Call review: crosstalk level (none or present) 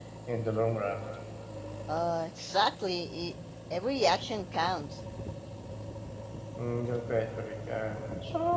none